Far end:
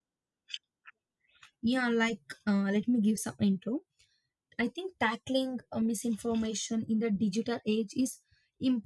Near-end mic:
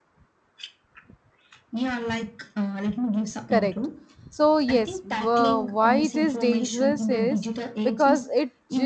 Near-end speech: present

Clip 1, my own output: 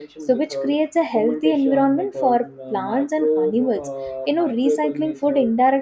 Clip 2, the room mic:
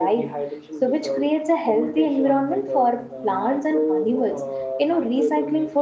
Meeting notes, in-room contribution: none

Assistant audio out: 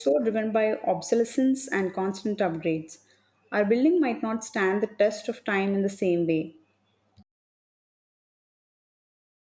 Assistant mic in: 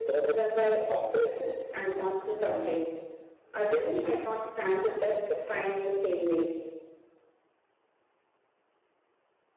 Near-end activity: none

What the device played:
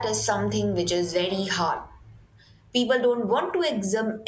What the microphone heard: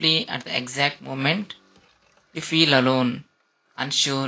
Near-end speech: present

